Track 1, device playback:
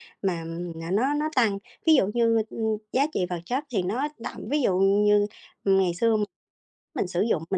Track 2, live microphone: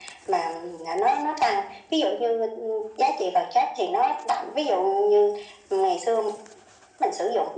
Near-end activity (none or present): none